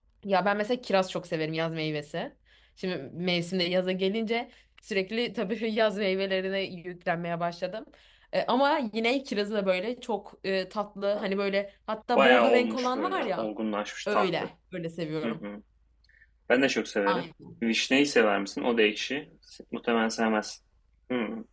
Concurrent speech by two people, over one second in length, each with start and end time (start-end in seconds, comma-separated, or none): 12.2-13.5